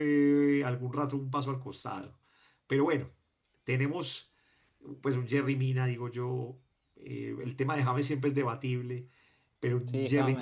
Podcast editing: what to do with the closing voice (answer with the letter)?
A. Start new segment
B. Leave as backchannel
B